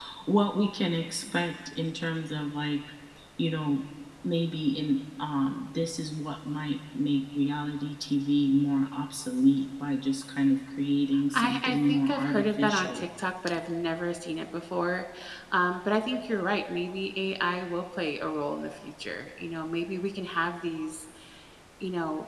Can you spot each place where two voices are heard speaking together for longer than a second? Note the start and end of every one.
11.3-13.1

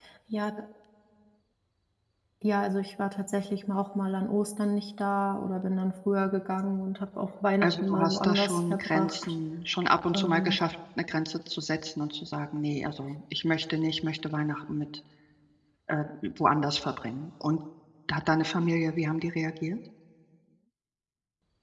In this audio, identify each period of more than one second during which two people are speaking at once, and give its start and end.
7.6-9.3

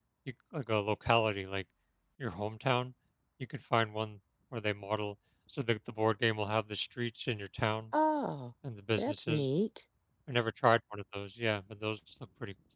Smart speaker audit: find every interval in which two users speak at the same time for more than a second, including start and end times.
none

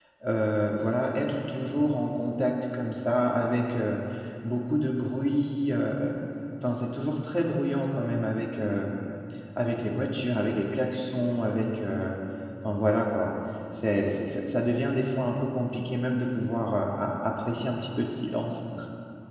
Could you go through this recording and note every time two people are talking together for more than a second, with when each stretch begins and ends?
none

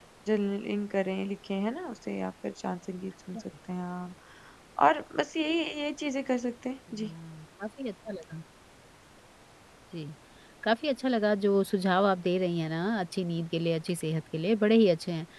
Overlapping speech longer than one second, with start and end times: none

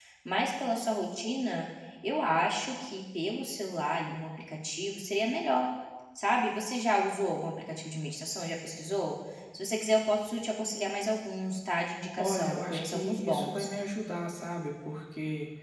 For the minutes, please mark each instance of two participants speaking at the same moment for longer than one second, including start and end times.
12.2-13.7

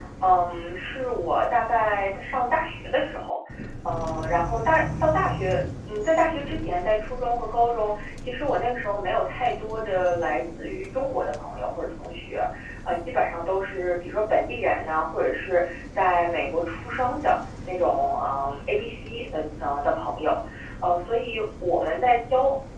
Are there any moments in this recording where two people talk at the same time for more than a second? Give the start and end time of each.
none

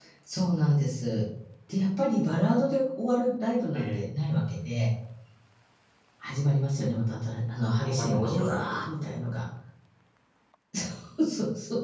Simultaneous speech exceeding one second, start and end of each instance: 7.8-9.2

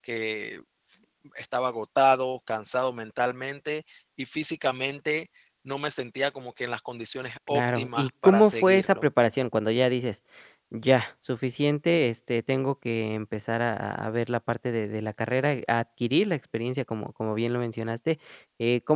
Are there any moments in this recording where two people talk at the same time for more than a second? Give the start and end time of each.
7.5-9.1

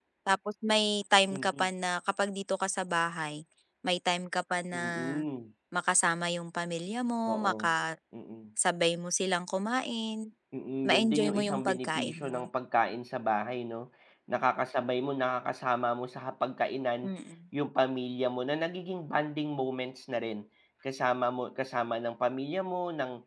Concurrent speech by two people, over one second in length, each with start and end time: 10.9-12.5

